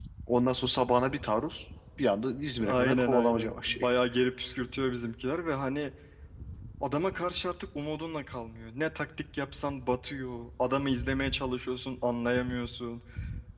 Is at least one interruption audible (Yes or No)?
Yes